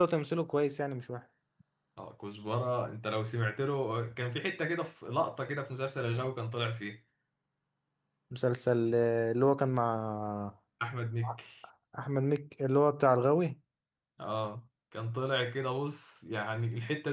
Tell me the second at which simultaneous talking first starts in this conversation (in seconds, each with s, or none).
none